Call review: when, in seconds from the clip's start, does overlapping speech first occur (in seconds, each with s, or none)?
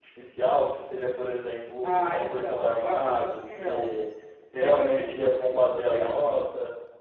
1.8 s